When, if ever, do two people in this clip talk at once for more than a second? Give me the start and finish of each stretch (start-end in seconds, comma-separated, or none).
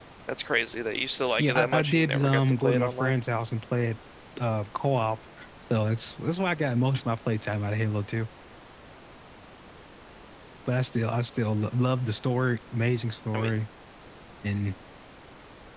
1.4-3.2